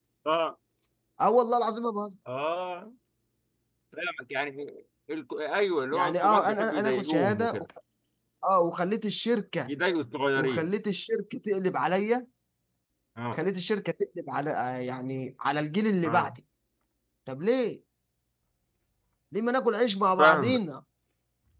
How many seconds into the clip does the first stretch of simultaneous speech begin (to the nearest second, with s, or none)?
6 s